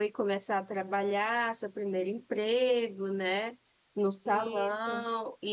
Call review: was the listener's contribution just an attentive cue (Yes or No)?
Yes